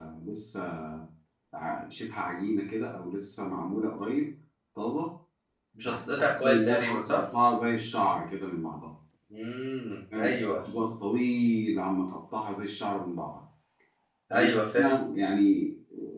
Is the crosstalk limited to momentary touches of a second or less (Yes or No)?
No